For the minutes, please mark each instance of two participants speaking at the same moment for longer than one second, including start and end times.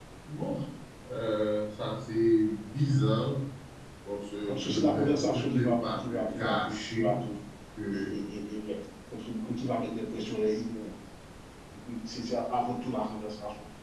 4.5-7.1

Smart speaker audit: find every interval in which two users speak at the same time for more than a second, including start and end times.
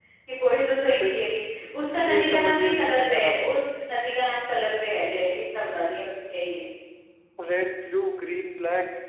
2.0-3.3

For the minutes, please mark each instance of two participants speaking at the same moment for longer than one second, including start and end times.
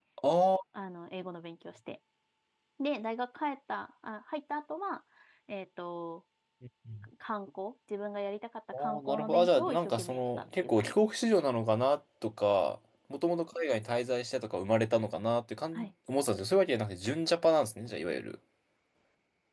8.7-11.1

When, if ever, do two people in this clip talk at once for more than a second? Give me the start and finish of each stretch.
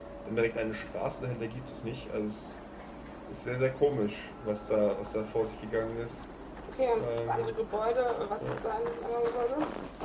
none

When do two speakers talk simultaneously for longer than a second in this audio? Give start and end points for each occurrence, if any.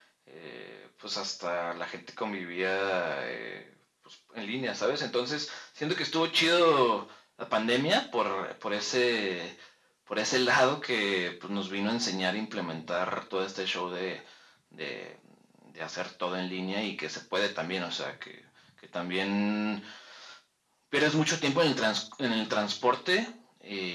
none

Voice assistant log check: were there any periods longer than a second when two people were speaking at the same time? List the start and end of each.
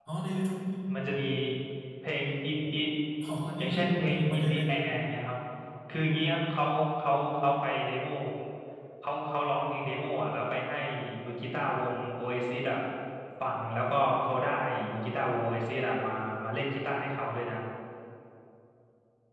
3.6-5.2

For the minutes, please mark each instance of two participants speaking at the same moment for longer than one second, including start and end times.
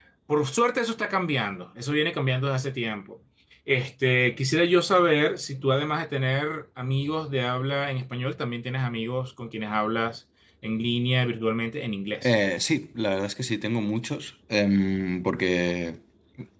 none

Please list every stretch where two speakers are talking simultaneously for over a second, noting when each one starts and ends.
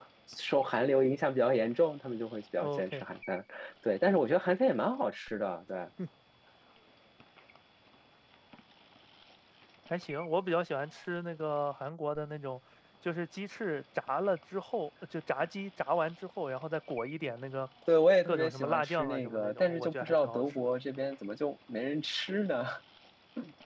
18.2-20.7

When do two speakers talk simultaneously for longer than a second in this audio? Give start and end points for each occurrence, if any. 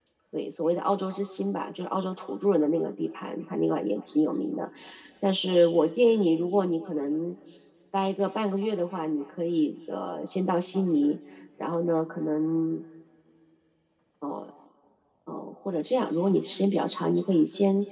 none

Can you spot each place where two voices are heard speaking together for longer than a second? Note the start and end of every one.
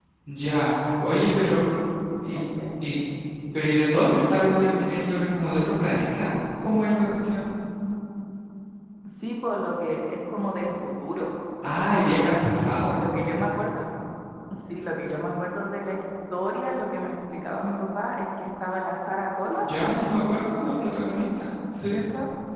none

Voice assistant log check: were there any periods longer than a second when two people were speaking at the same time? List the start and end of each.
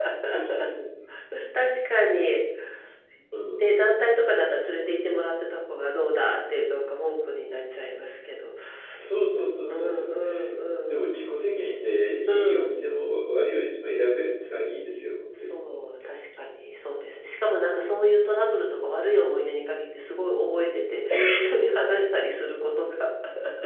none

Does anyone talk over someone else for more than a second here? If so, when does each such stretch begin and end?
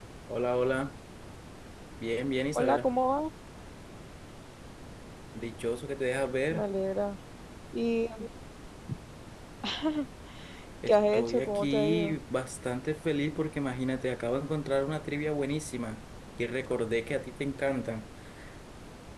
10.9-12.1

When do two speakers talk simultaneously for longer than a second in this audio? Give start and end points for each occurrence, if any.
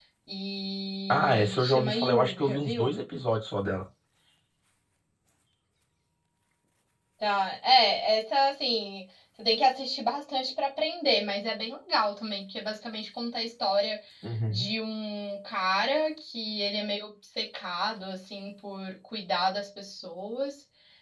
1.1-3.0

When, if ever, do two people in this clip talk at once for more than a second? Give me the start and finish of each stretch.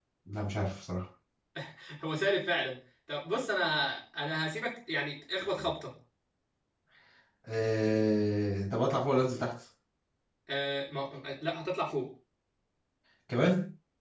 none

